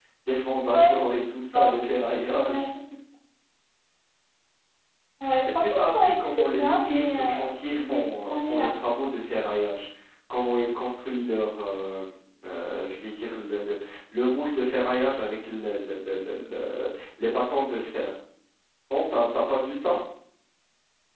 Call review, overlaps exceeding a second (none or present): present